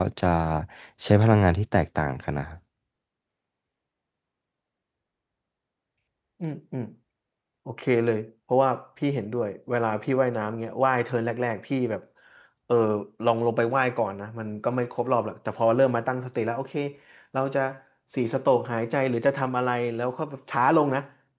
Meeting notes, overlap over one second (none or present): none